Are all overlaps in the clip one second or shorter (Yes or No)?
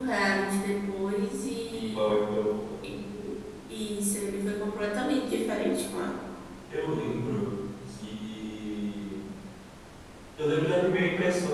Yes